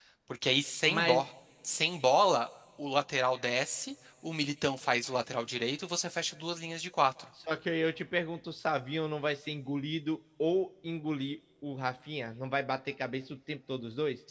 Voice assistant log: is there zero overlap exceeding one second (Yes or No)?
Yes